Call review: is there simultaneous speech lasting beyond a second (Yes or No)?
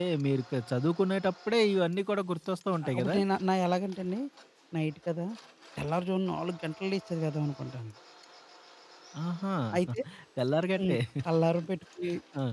No